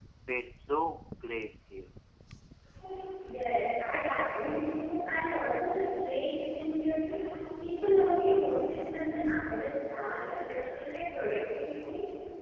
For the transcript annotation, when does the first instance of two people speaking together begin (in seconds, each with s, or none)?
none